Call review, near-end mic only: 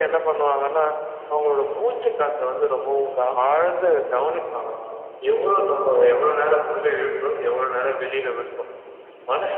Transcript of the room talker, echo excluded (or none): none